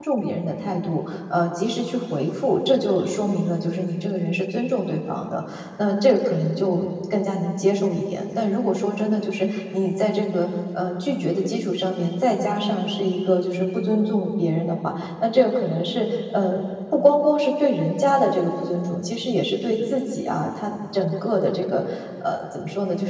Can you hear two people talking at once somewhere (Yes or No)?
No